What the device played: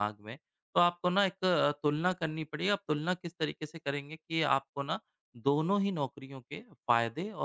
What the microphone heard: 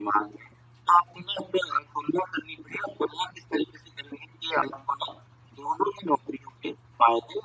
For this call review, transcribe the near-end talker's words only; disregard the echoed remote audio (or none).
none